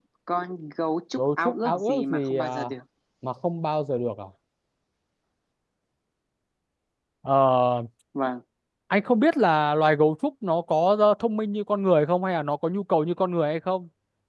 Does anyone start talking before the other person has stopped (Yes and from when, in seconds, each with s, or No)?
Yes, from 1.2 s